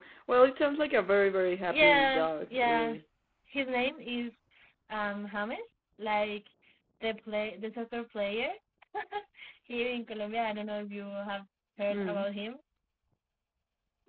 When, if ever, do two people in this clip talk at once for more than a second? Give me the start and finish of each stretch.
1.7-2.9

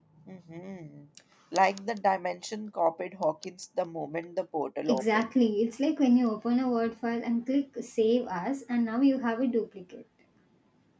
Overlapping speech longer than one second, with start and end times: none

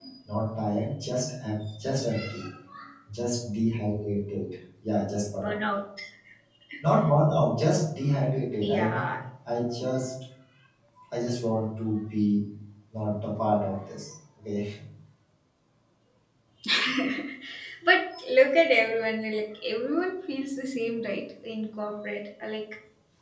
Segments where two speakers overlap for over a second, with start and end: none

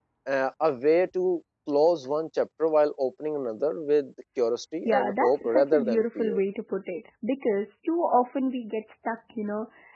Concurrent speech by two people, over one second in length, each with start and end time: 4.8-6.4

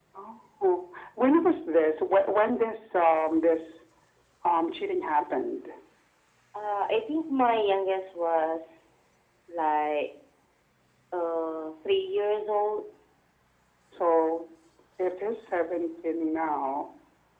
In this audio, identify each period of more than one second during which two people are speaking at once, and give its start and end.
none

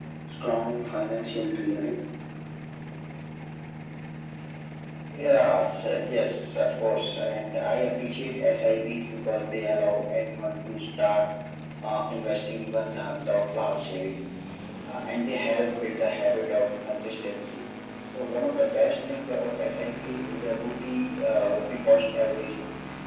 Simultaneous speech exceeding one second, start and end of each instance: none

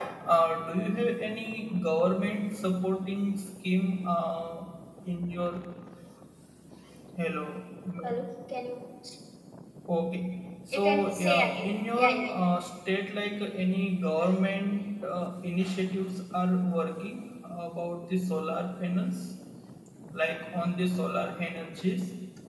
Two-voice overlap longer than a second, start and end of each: 10.7-12.4

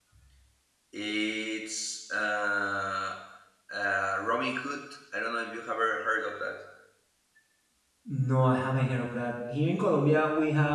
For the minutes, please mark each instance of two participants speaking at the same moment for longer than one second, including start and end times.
none

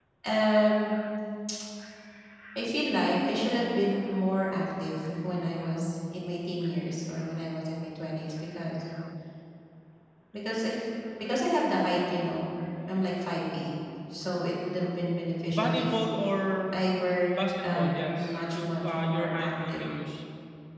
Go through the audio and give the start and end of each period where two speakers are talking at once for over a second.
17.3-19.8

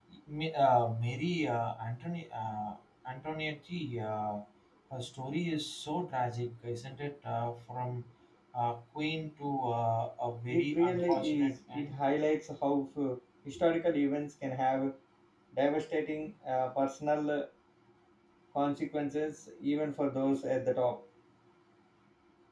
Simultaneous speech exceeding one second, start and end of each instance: 10.5-12.0

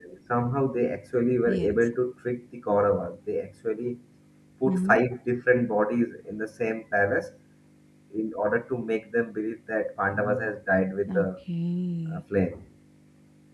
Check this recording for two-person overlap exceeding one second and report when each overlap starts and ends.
none

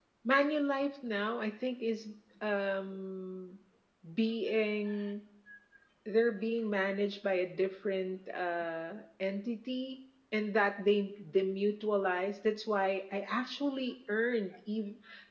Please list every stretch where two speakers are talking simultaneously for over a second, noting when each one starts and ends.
none

